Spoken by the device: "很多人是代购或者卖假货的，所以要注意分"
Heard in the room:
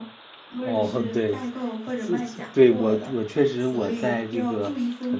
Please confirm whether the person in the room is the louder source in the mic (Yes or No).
Yes